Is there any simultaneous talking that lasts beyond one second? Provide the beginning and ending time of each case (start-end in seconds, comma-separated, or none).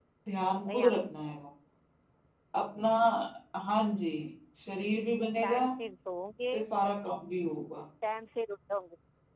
none